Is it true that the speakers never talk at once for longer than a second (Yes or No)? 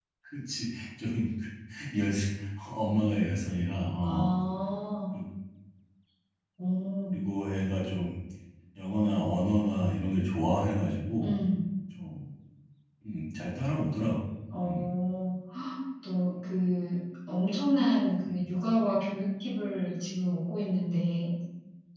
Yes